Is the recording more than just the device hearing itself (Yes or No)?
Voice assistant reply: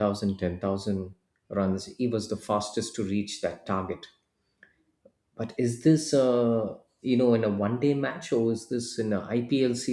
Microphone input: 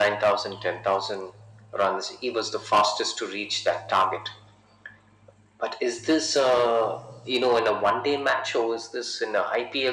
No